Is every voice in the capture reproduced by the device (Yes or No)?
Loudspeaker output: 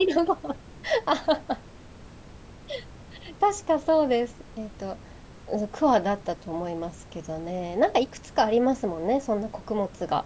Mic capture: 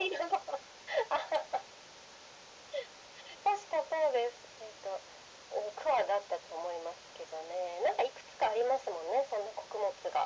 Yes